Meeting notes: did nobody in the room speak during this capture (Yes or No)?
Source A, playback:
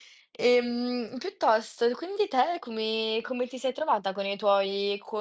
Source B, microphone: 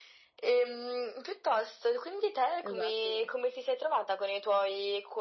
No